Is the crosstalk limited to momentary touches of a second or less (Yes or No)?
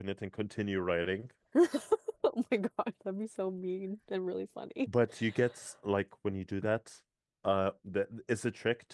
Yes